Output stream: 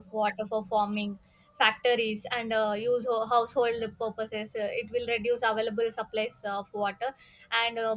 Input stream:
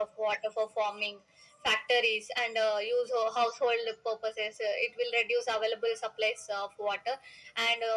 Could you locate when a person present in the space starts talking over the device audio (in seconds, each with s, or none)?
none